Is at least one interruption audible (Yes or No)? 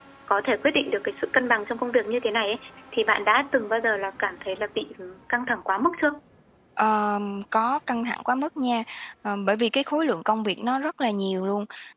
No